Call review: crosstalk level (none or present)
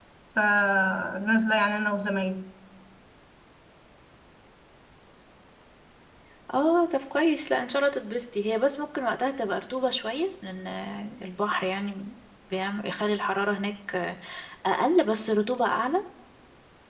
none